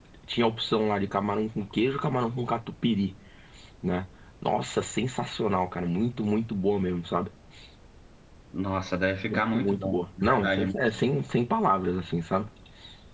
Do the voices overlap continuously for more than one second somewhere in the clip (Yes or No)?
Yes